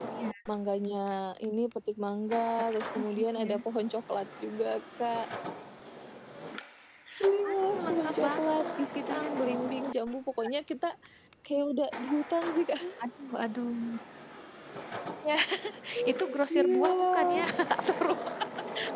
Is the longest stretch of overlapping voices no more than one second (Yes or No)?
No